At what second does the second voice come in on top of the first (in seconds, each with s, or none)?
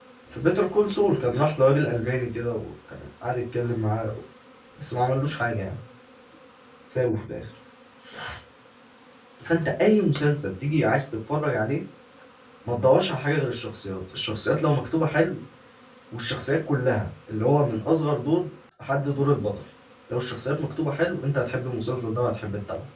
none